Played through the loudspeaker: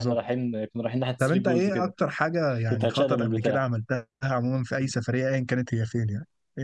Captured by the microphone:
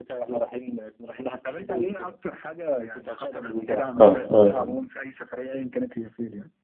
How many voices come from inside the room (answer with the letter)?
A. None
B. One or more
B